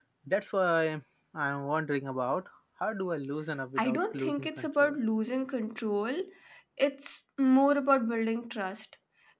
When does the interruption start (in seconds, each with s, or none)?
3.8 s